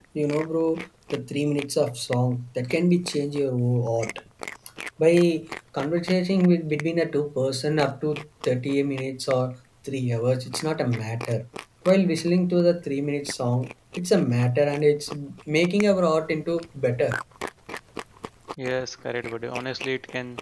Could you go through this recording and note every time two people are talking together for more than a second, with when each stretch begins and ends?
none

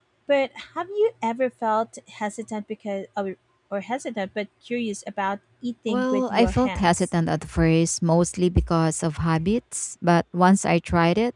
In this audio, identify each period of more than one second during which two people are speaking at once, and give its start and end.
5.9-7.1

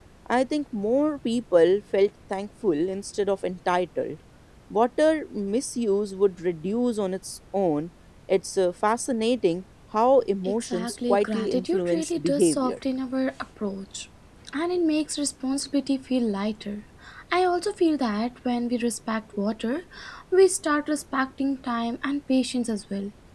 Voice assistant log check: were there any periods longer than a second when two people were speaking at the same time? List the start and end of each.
10.4-12.7

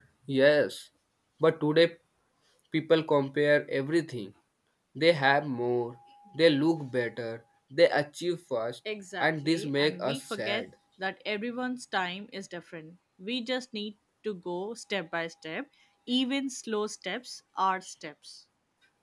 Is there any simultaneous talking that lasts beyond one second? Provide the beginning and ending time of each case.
9.2-10.7

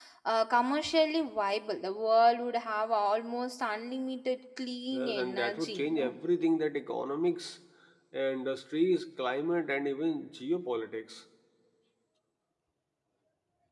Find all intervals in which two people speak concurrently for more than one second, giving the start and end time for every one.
4.9-6.2

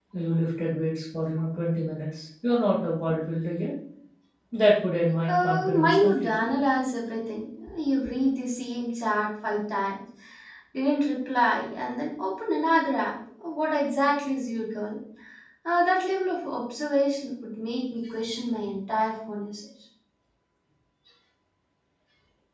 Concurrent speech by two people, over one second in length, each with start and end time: 5.3-6.5

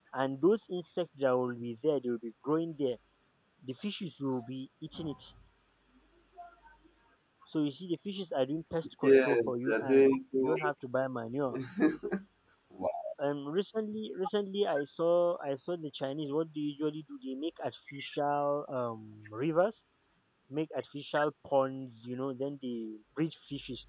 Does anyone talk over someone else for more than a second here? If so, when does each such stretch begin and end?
9.0-10.7

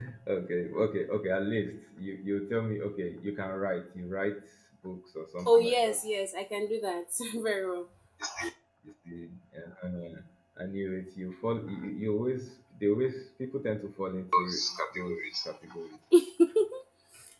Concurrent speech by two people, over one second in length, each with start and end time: none

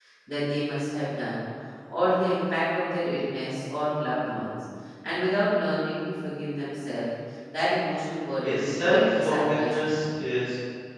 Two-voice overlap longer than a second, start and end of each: 8.4-10.0

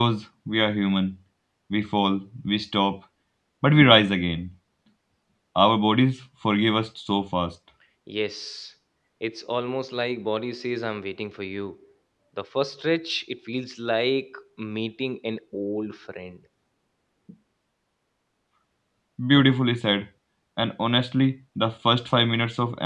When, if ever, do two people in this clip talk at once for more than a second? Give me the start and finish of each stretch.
none

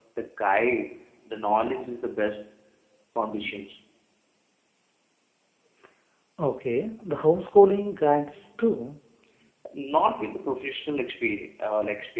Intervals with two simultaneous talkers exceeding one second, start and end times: none

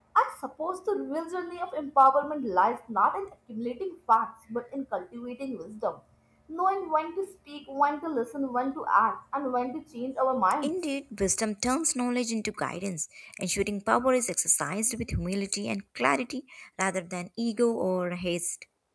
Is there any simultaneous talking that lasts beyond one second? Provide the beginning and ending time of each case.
none

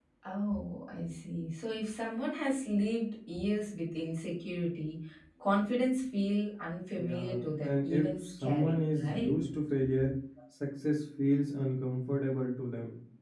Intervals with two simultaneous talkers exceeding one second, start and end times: 7.0-9.4

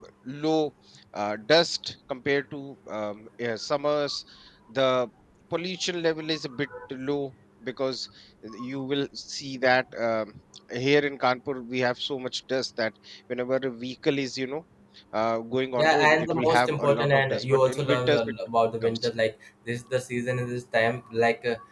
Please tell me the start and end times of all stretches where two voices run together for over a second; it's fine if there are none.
15.8-18.2

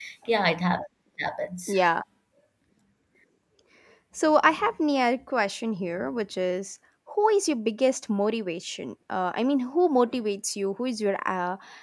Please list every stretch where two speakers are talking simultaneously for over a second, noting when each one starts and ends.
none

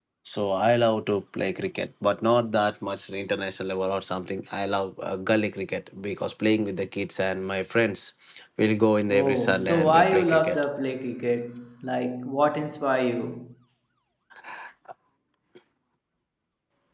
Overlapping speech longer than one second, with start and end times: 9.1-10.6

